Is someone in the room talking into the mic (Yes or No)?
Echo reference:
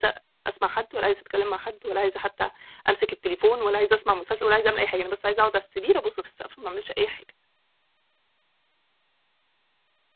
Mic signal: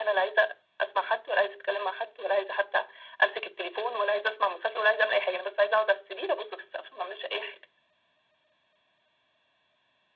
No